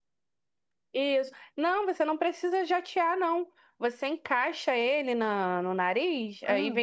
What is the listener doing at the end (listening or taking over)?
listening